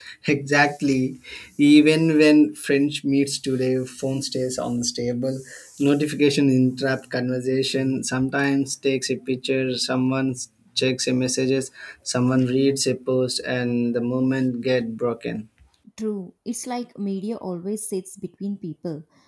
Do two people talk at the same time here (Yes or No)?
No